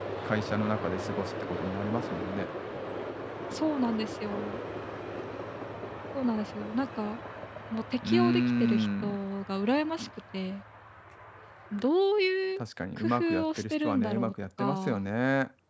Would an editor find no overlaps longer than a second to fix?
No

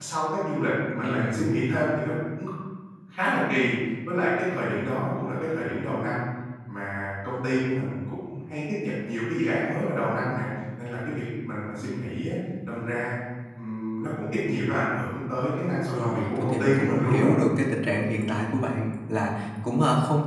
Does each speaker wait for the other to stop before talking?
No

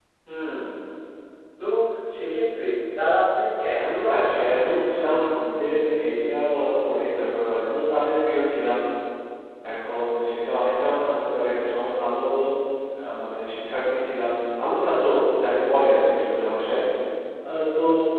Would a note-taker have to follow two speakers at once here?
Yes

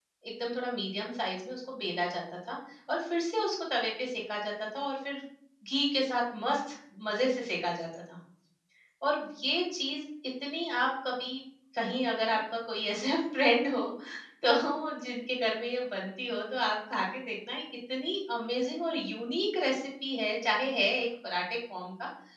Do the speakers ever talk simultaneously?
No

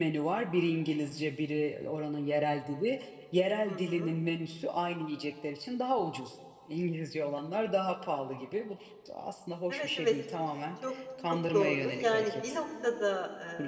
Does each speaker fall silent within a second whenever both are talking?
No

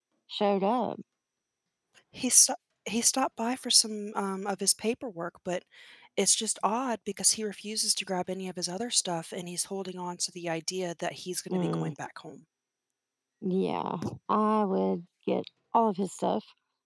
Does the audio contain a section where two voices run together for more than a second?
No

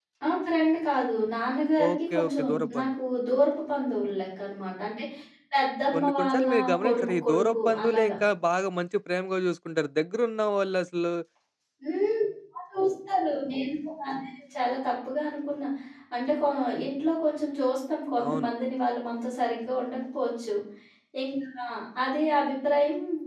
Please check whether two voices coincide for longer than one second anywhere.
Yes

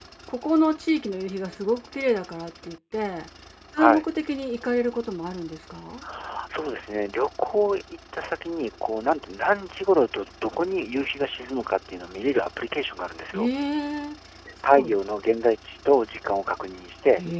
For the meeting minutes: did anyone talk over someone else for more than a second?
No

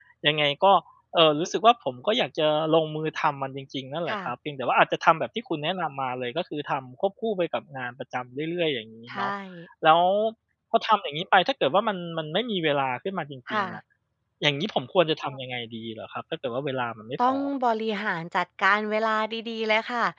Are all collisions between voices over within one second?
Yes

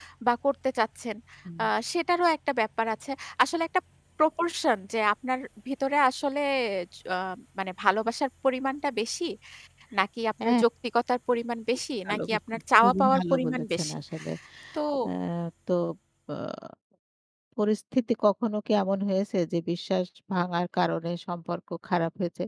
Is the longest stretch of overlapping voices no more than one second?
No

